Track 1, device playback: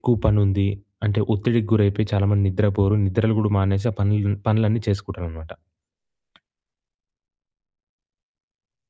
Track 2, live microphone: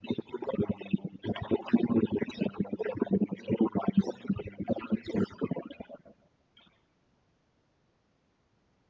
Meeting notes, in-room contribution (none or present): none